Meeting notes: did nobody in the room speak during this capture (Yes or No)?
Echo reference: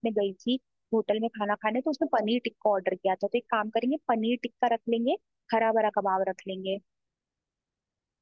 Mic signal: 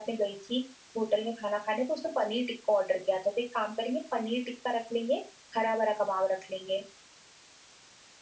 Yes